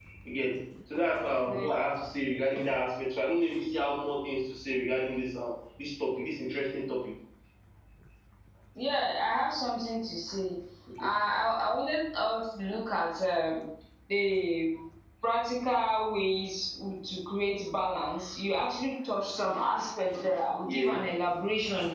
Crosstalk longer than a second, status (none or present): none